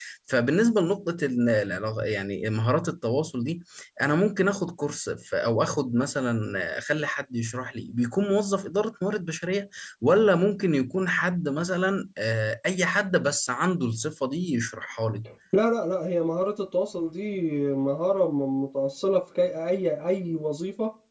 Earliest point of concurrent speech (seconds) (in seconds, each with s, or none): none